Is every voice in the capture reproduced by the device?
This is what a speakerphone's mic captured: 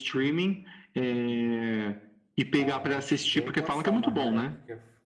No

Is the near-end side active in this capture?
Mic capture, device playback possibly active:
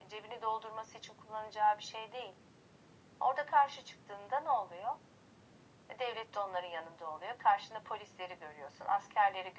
No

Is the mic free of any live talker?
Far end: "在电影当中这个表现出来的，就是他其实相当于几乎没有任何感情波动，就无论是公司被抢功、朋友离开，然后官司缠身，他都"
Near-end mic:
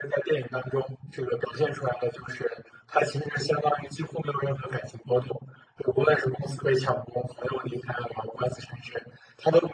Yes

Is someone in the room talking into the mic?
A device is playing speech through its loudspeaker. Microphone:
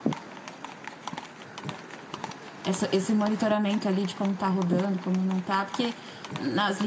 Yes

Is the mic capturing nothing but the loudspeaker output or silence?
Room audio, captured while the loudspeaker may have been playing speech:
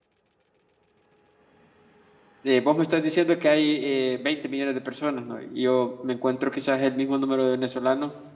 No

